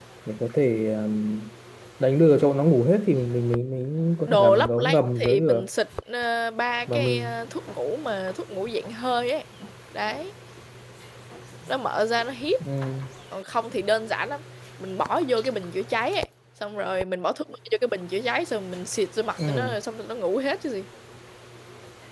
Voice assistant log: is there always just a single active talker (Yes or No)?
No